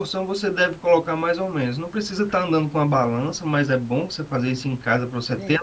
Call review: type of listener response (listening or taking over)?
listening